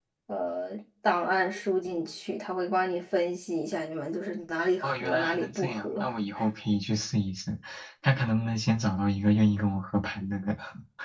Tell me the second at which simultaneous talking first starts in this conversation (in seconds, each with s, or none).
4.8 s